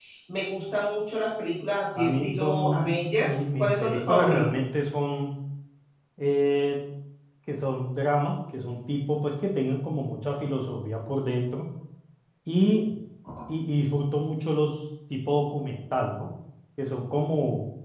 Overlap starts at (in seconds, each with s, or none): 1.9 s